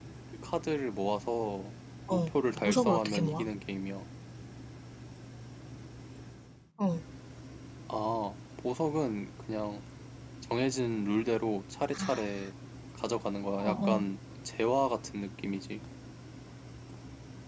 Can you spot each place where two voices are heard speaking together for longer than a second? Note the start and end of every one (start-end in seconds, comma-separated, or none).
2.1-3.5